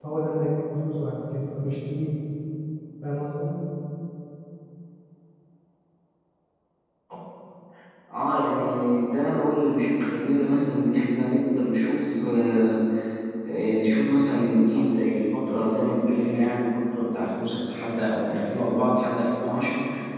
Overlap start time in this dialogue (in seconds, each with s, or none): none